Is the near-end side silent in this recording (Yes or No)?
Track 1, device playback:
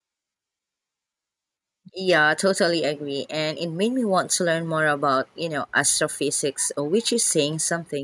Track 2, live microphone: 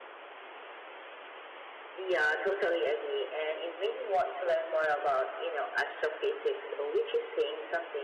Yes